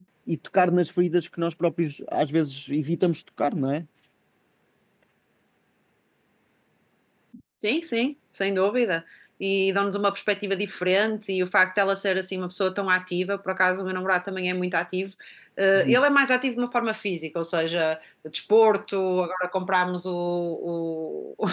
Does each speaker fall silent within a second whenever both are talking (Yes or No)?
Yes